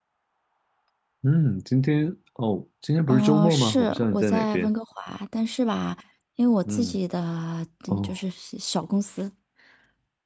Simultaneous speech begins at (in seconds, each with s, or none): 3.1 s